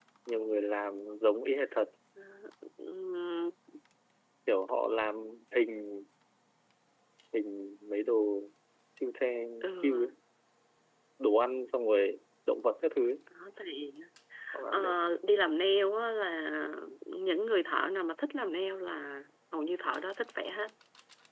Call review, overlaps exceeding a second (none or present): none